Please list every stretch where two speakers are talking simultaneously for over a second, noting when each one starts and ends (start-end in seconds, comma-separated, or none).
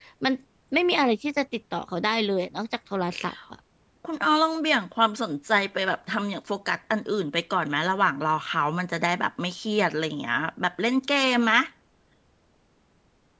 none